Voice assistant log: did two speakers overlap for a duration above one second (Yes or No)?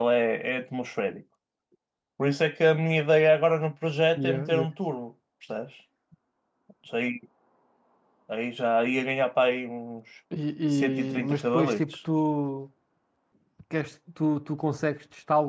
Yes